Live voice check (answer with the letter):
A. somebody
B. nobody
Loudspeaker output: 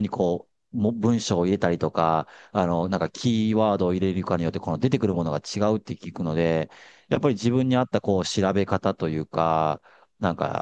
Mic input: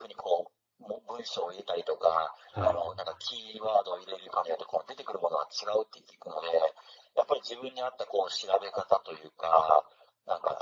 A